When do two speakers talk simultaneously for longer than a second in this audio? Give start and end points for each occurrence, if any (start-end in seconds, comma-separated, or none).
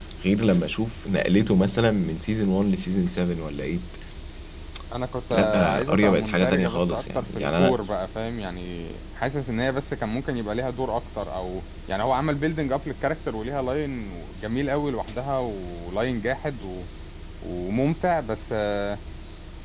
5.3-7.8